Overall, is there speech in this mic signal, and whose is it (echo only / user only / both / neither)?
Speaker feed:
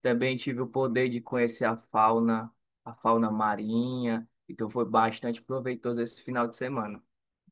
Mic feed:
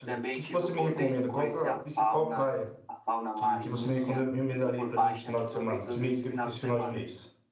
both